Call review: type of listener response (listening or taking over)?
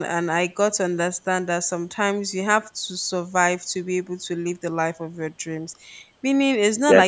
listening